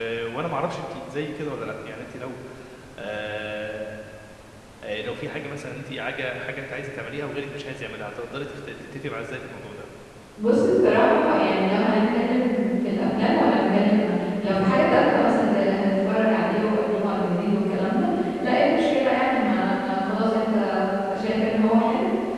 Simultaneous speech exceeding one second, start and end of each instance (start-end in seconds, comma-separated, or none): none